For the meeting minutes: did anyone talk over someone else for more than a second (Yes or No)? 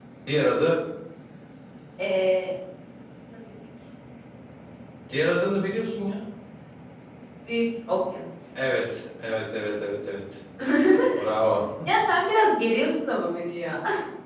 No